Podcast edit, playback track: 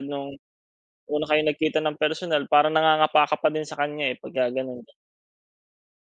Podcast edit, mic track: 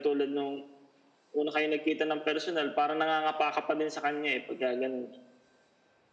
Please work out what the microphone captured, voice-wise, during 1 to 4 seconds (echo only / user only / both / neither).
echo only